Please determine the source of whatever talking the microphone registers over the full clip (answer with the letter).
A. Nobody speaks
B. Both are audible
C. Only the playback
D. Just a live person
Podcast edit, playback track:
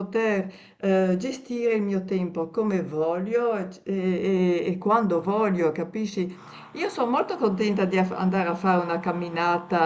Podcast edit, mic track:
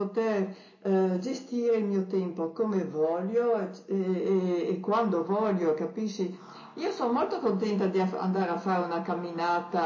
C